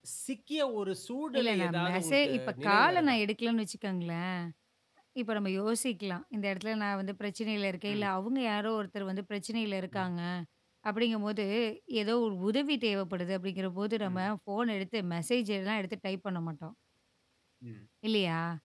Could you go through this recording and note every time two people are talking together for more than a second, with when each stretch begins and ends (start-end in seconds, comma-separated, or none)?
1.4-3.2